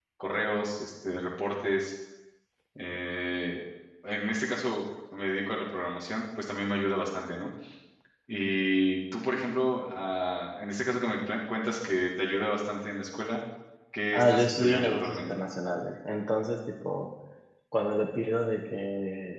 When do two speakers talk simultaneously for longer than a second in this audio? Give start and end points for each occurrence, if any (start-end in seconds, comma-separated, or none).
14.1-15.4